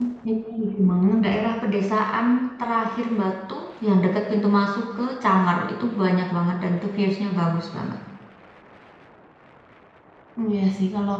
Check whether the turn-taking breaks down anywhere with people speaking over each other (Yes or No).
No